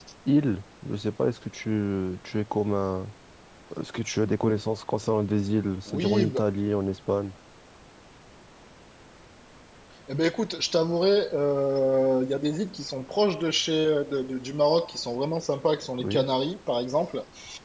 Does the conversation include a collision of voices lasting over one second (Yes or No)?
No